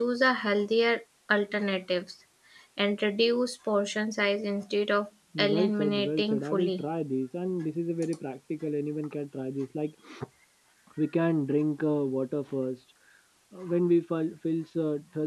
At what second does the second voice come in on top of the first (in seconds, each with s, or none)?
5.3 s